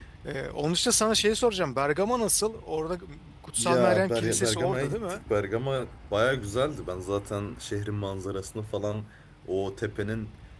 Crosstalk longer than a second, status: present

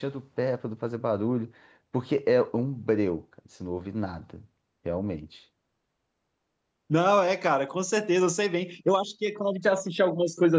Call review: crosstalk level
none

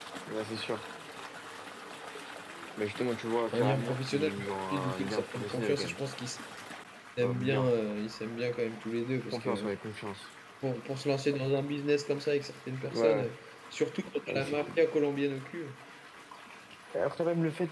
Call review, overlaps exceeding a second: present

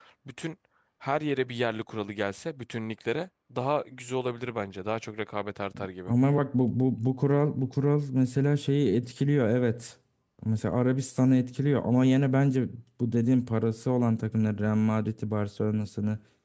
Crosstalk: none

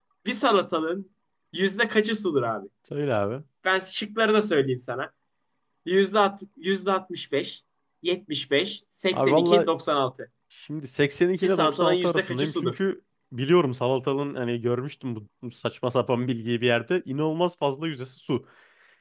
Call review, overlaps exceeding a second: present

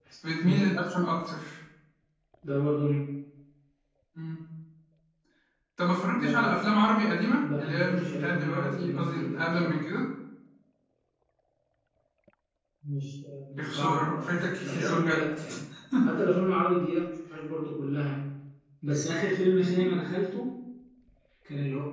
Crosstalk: present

